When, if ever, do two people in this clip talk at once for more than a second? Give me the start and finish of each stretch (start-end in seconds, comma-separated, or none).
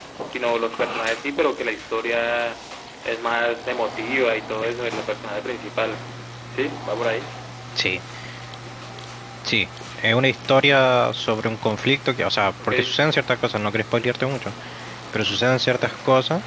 none